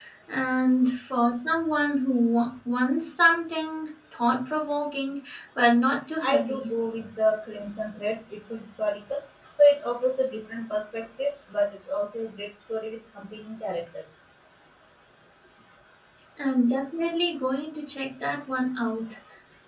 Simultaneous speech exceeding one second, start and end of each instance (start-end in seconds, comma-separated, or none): none